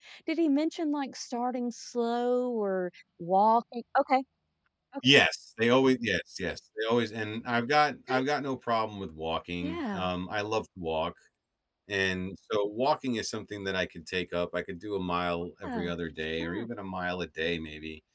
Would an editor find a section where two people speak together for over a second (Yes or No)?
No